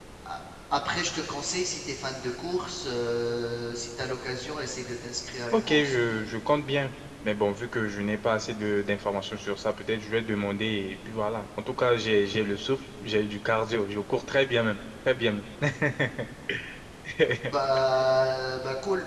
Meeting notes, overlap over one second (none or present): none